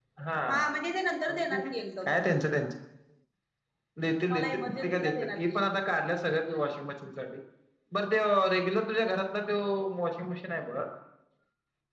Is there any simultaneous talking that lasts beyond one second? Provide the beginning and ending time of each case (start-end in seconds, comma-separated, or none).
4.3-5.6